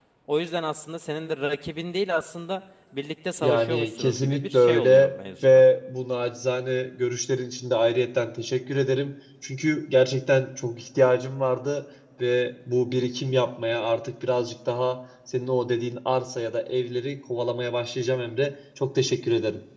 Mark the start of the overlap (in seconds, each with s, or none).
3.4 s